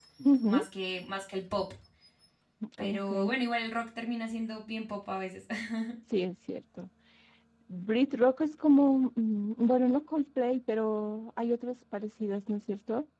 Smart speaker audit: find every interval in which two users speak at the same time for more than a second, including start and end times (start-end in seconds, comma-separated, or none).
none